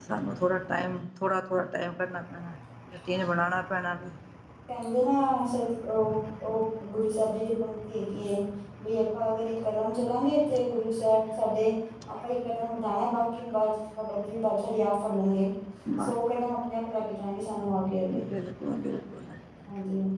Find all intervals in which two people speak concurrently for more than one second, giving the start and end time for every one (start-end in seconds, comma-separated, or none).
none